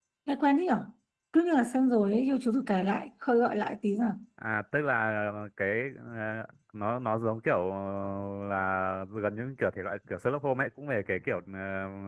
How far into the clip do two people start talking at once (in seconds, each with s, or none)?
none